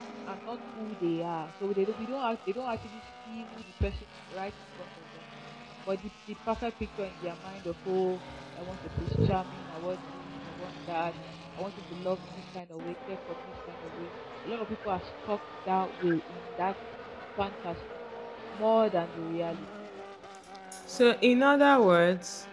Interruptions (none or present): none